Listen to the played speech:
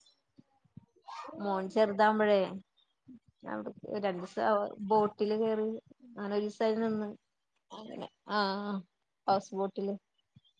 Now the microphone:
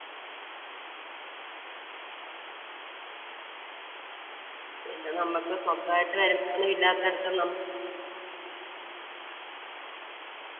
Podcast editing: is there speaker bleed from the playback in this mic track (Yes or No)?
No